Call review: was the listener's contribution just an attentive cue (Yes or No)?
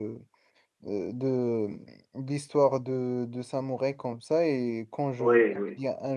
Yes